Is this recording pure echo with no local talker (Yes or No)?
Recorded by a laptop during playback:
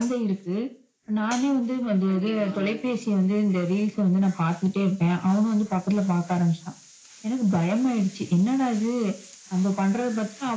No